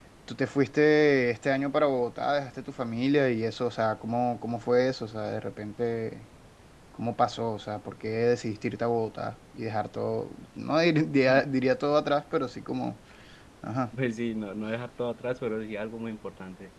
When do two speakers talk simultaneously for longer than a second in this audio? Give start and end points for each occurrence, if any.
none

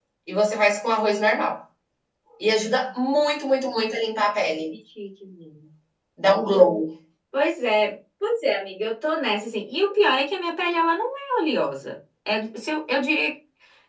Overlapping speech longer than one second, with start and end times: none

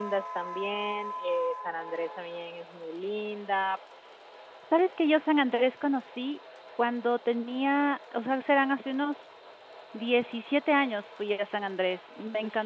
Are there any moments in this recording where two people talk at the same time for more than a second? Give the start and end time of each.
none

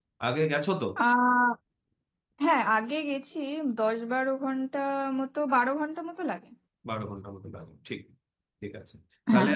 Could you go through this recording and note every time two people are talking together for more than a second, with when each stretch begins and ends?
none

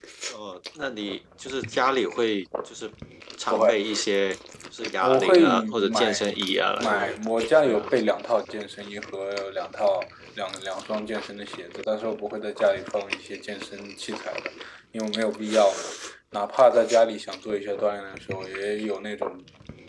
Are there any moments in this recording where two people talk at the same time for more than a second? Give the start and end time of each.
5.0-6.3

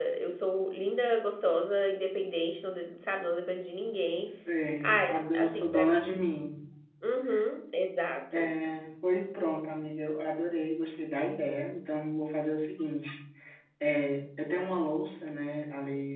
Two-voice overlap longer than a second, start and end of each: 4.8-6.2

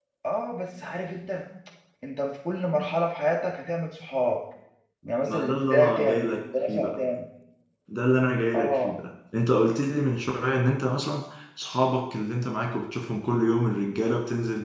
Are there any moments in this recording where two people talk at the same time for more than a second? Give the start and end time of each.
5.3-7.0

